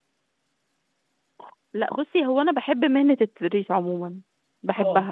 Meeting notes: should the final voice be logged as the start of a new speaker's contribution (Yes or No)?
No